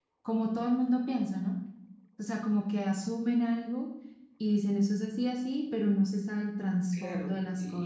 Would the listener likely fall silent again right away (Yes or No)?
No